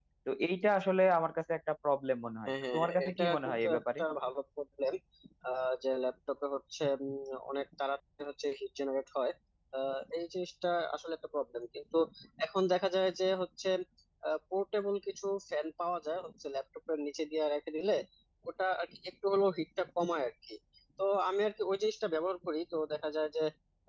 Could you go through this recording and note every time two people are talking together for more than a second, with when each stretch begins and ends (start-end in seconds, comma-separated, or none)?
2.5-4.0